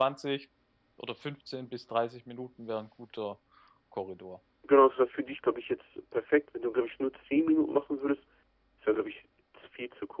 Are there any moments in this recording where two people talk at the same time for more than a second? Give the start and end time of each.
none

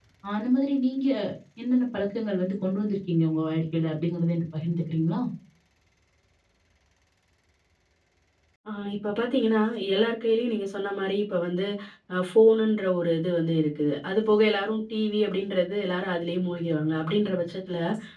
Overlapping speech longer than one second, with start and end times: none

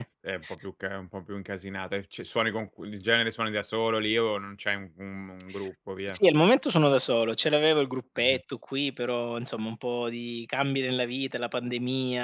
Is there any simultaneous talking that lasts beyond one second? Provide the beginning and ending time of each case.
none

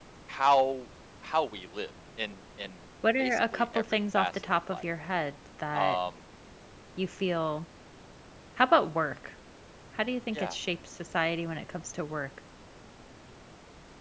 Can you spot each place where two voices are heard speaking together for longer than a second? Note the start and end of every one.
3.2-4.8

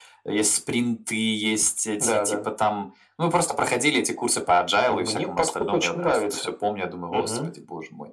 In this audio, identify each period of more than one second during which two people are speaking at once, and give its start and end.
4.9-6.5

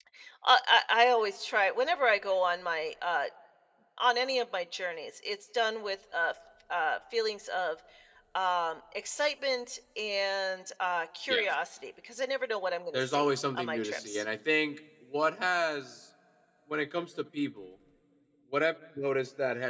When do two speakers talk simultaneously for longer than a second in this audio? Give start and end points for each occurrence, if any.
12.9-14.2

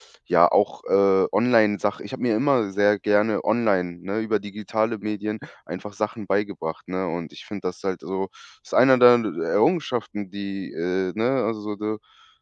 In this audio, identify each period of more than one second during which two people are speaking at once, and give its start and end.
none

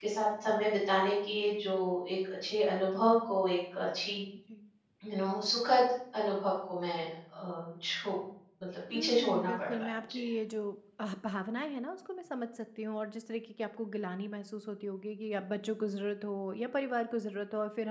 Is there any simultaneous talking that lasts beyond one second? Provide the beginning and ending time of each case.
8.9-10.2

